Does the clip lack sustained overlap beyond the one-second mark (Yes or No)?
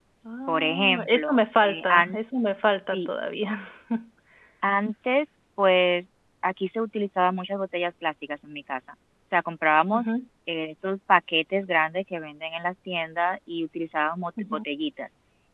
No